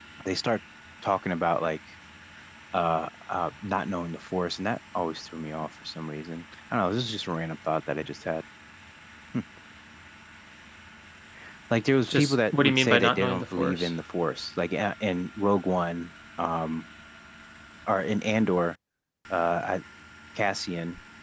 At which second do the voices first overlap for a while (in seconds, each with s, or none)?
12.1 s